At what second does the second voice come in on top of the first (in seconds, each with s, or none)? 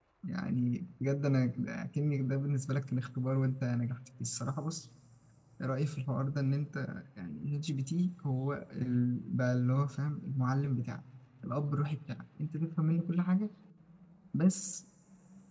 none